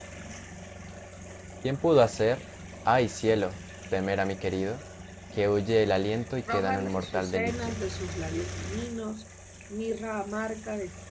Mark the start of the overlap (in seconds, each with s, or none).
6.5 s